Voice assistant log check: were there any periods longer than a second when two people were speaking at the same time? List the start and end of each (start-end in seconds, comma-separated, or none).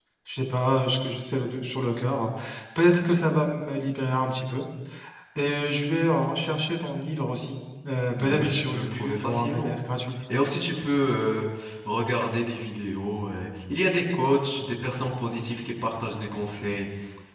8.1-9.7